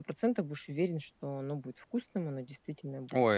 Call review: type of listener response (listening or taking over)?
taking over